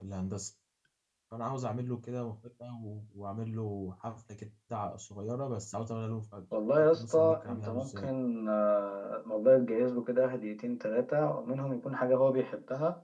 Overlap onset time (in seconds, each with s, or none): 6.8 s